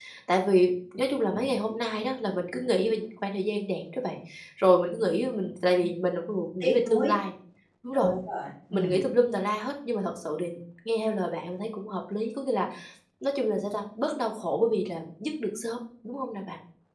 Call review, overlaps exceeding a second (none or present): none